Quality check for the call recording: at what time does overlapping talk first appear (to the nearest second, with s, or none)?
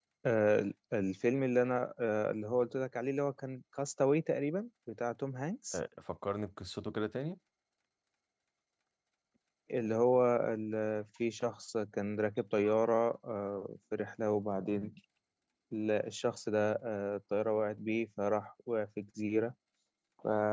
none